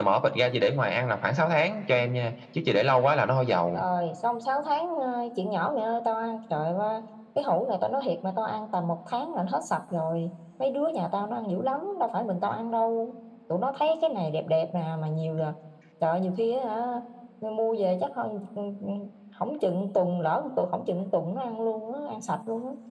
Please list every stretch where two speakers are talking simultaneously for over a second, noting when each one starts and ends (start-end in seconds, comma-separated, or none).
none